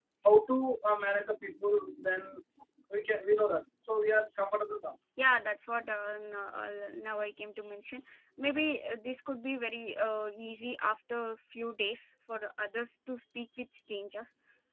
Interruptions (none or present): none